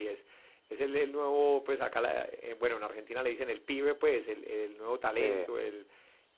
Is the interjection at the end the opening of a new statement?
No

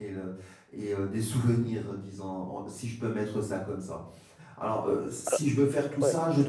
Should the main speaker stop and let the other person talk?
No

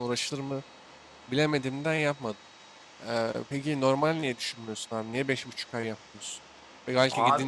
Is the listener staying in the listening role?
Yes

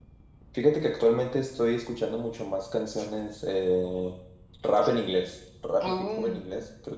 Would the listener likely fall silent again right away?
Yes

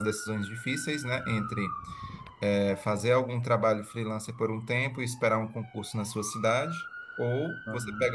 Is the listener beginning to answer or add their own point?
No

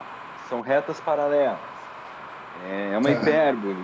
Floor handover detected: No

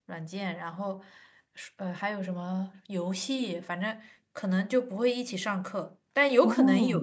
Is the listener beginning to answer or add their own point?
No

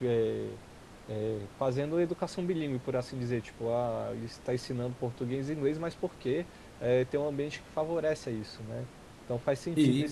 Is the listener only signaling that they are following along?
Yes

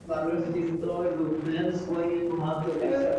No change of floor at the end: Yes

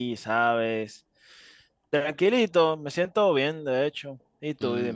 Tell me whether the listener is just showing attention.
No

